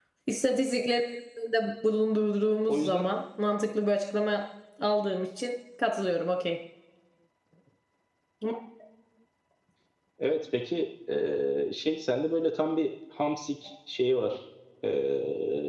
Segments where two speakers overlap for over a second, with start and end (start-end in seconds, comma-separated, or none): none